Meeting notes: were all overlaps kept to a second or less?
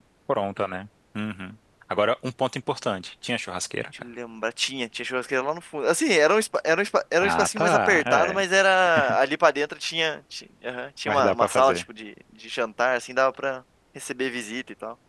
No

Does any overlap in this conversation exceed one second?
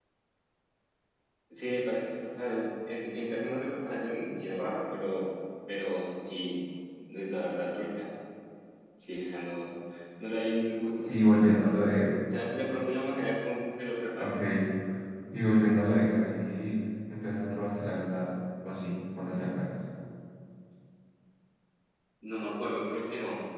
No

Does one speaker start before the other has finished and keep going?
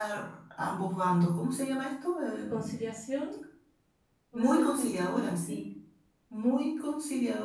Yes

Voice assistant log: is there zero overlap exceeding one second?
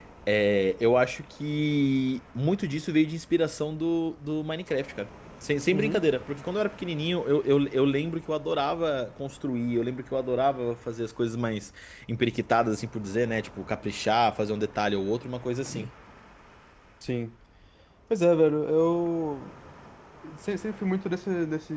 Yes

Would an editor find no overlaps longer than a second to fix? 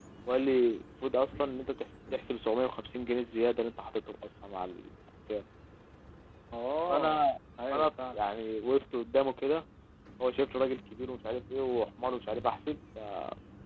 Yes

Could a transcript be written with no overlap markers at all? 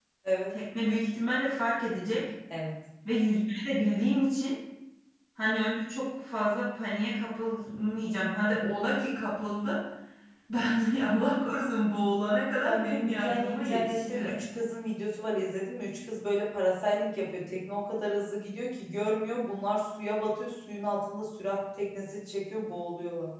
No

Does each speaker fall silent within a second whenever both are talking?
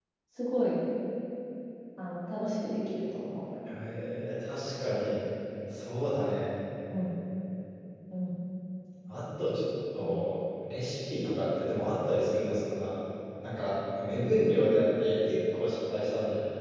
Yes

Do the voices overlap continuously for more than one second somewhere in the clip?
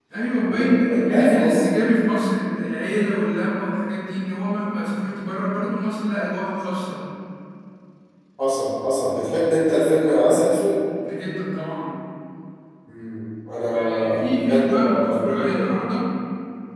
Yes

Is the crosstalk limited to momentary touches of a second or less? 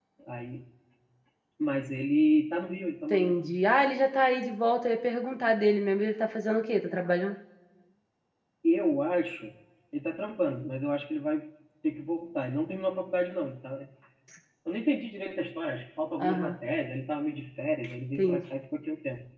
Yes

